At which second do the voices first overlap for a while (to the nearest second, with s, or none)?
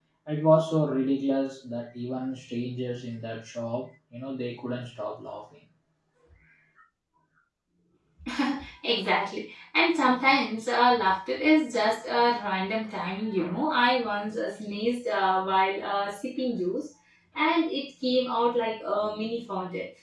none